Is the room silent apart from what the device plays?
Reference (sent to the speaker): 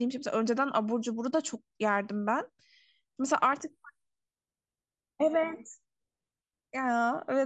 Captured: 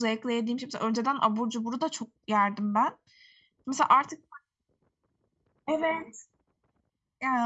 Yes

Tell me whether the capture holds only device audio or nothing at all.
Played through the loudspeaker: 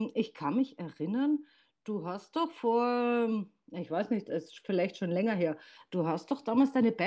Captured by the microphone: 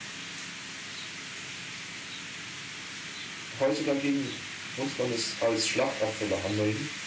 No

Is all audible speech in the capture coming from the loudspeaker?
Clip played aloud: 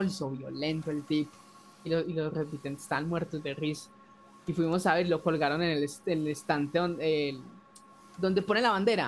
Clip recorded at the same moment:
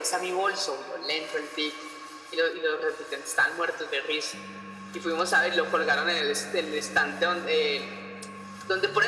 Yes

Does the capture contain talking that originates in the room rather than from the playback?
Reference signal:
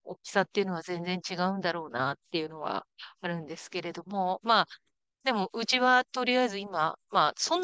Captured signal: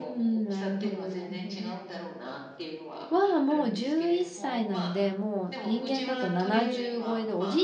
Yes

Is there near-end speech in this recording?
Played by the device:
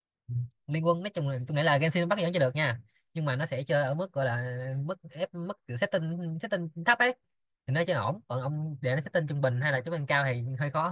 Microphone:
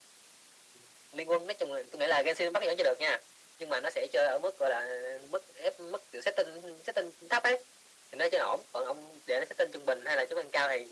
No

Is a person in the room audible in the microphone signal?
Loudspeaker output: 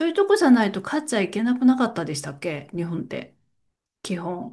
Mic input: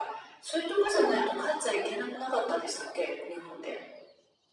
No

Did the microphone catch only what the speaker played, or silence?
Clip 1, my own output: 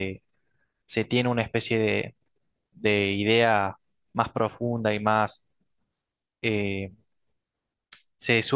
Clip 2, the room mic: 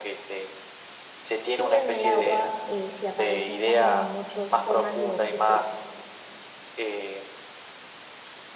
No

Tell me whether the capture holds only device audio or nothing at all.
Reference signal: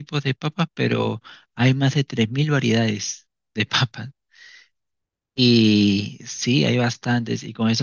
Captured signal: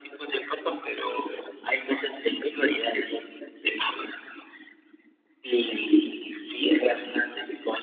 Yes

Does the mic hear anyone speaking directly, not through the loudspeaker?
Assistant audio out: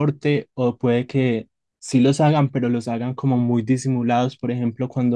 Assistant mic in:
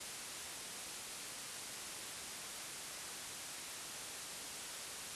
No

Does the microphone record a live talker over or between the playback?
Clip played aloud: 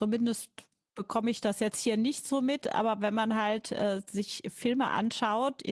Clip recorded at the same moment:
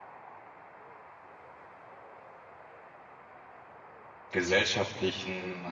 Yes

